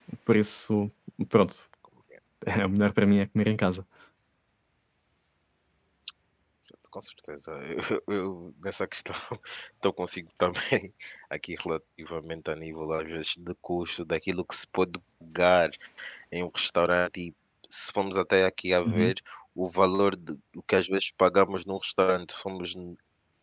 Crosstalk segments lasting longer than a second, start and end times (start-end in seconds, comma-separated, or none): none